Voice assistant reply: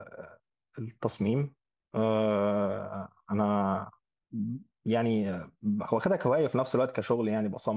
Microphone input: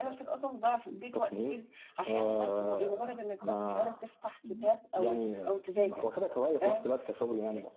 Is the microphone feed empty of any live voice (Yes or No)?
No